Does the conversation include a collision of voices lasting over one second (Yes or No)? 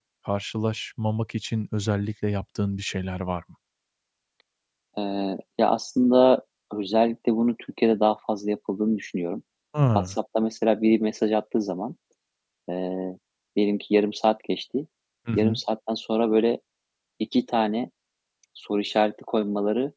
No